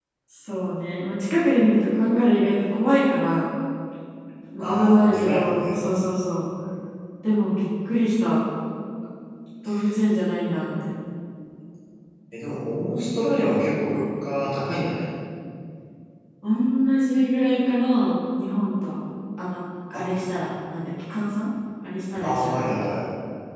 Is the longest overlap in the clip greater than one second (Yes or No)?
Yes